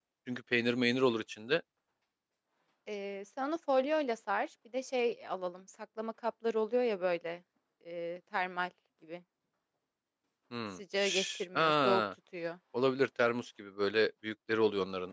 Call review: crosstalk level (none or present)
present